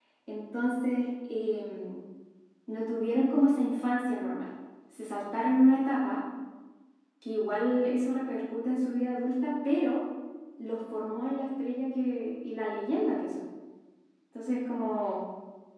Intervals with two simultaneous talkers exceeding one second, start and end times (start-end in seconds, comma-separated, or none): none